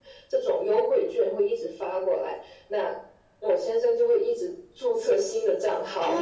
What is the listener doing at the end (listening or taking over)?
taking over